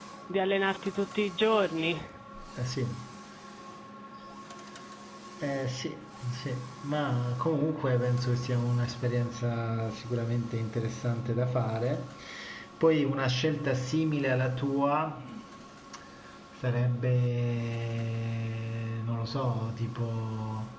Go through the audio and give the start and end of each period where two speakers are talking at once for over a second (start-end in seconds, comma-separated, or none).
none